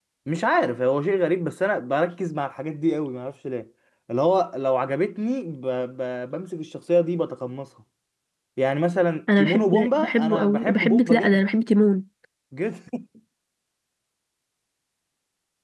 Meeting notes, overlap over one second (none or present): present